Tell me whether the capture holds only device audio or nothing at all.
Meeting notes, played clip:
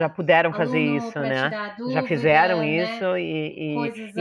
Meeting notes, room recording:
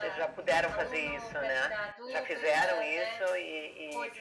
Yes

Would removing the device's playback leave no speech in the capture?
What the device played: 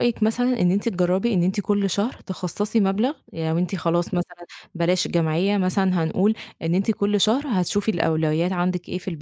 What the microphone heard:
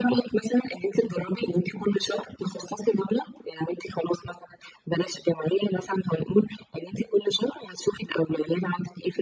Yes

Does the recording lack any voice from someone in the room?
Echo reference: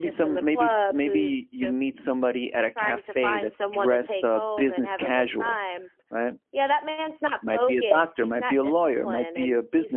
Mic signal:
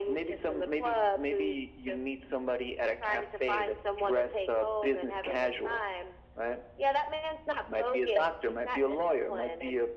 Yes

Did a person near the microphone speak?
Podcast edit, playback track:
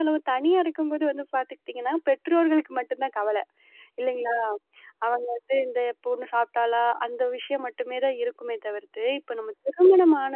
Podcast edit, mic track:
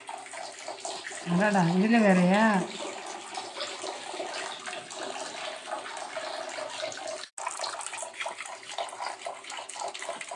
Yes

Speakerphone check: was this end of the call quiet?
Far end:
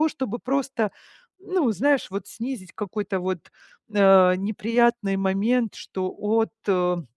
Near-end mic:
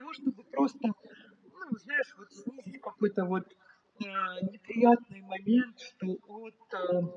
Yes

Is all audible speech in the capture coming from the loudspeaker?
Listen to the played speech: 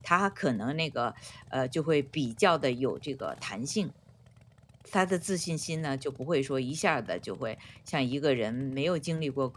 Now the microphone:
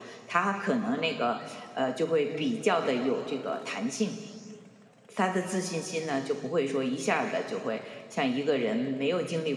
Yes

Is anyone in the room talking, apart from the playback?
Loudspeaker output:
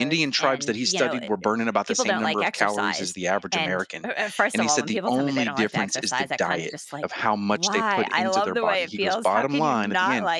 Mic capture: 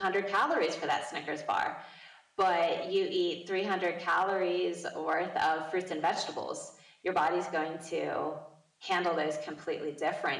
Yes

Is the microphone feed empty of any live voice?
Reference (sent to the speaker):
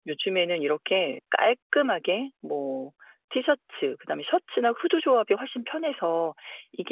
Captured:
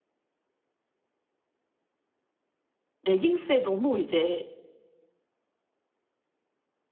No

